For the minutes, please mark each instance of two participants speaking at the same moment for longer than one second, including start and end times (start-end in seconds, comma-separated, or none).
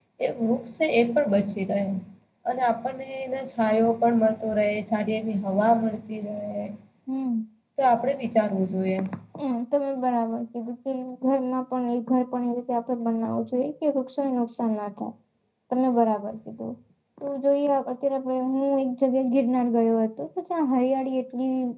none